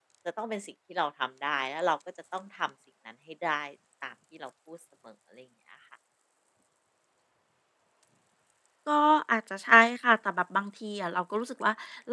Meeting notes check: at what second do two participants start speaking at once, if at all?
none

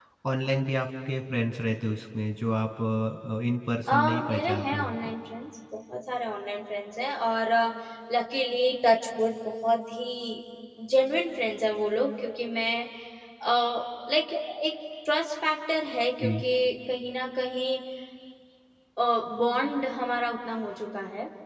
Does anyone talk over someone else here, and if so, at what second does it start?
3.9 s

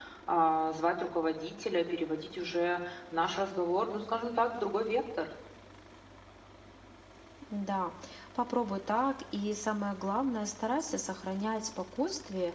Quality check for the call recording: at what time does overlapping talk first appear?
none

